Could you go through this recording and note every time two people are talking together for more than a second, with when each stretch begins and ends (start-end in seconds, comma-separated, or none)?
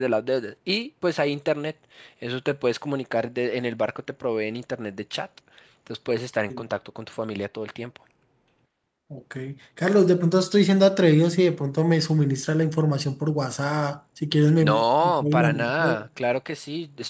14.6-16.0